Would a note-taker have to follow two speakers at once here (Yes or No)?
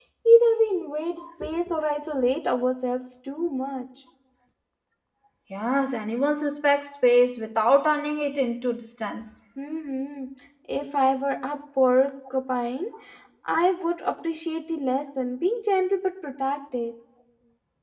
No